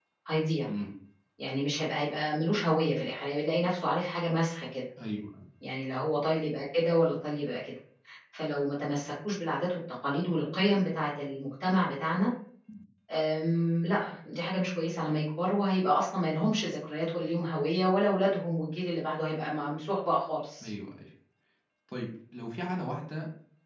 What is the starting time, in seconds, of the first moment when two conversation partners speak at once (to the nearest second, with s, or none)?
none